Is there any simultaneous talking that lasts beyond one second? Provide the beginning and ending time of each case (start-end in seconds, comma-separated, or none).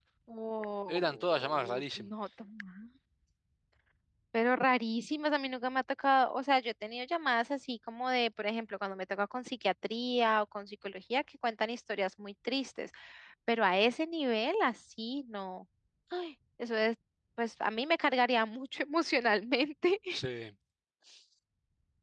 0.9-2.1